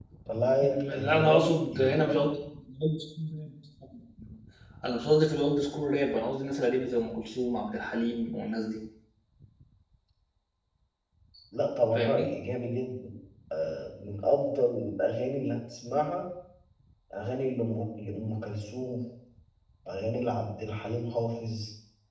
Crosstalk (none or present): present